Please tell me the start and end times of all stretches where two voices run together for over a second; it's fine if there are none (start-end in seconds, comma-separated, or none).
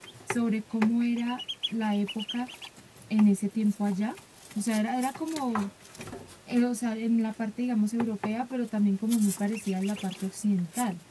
none